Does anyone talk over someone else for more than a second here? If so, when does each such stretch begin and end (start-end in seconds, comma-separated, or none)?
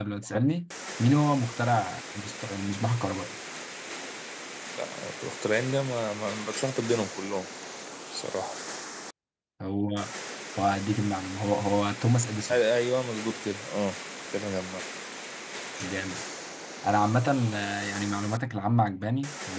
none